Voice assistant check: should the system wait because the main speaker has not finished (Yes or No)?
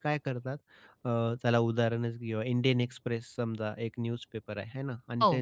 Yes